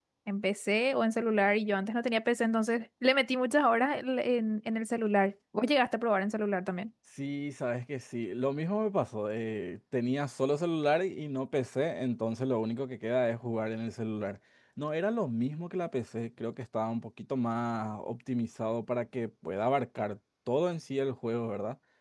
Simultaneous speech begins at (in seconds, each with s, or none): none